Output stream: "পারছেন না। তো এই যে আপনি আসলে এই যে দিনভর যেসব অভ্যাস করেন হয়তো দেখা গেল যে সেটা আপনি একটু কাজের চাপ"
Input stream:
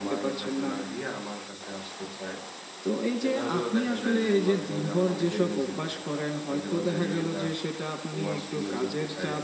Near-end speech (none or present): present